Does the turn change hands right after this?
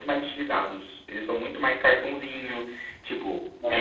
No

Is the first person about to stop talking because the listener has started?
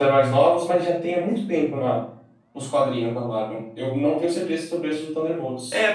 Yes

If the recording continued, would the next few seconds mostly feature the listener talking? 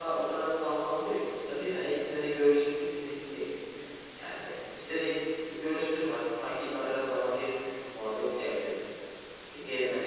No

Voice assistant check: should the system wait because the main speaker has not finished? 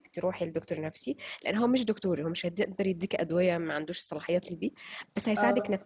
Yes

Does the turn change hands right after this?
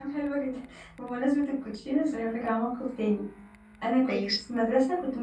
No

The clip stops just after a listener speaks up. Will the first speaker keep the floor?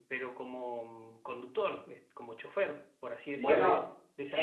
No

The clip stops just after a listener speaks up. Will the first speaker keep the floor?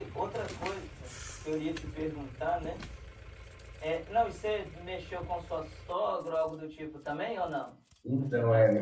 No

